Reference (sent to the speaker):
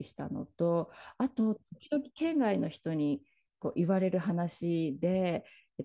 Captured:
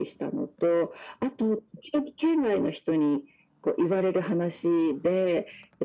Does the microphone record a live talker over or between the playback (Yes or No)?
No